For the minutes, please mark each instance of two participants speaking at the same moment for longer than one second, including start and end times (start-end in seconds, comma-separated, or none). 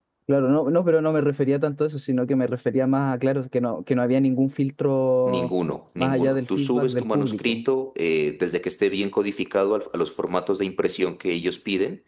6.0-7.6